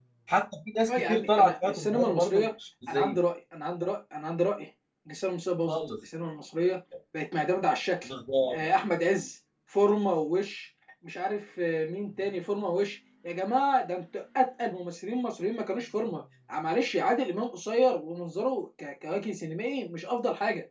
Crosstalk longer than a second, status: present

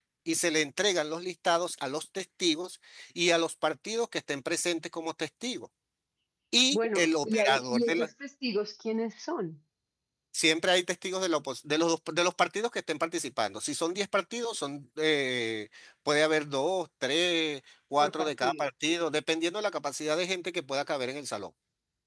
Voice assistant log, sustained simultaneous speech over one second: present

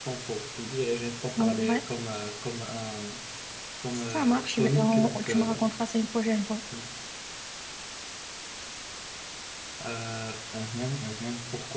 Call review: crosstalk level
present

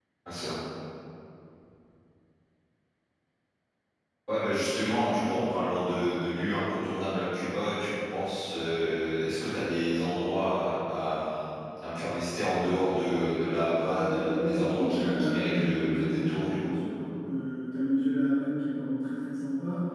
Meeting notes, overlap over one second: present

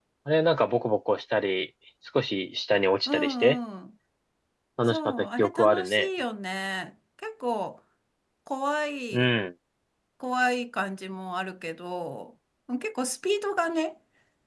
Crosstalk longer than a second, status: present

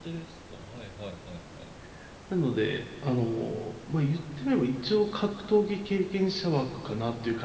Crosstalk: none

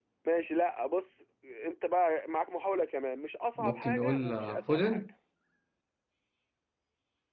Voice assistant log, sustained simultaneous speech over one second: present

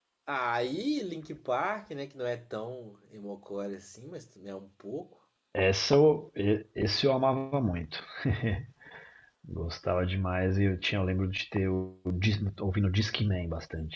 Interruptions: none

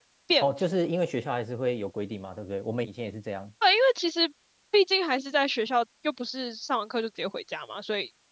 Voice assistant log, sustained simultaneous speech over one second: none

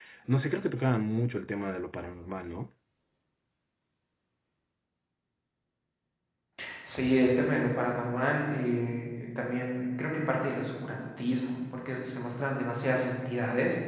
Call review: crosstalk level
none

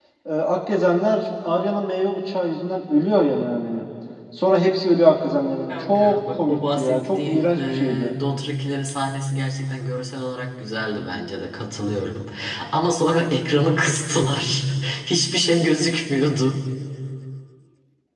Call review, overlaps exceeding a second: present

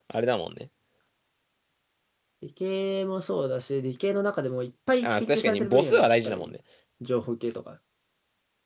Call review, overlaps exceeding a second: present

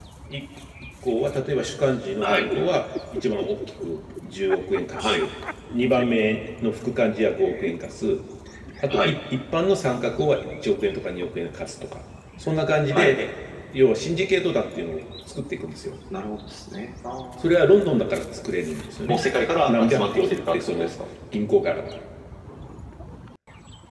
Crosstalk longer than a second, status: present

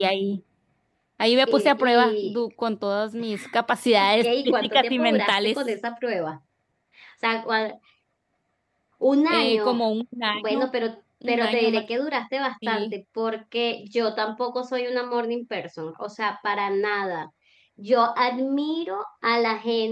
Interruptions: present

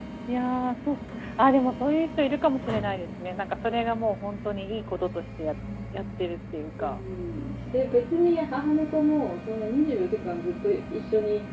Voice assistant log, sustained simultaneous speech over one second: none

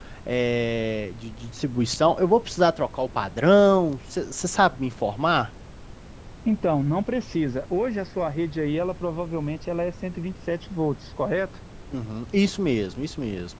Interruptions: none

